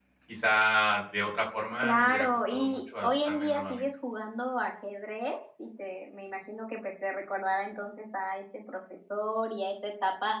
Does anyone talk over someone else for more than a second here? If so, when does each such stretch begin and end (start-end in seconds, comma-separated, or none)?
1.8-3.8